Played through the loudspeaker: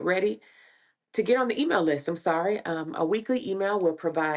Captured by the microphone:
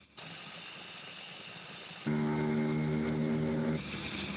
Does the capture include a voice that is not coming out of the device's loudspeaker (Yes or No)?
No